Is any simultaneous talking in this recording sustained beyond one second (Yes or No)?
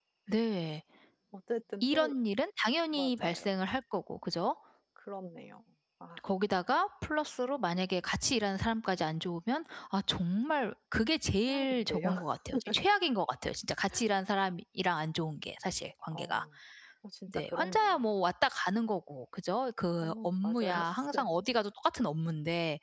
Yes